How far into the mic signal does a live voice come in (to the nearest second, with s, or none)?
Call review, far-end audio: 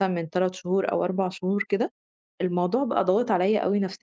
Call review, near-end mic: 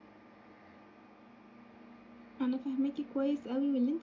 2 s